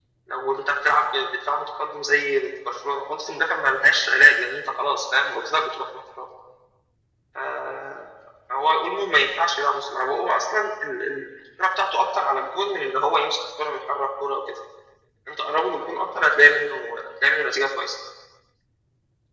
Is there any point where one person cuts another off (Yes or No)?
No